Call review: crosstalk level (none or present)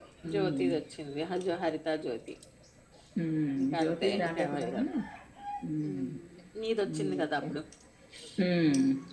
present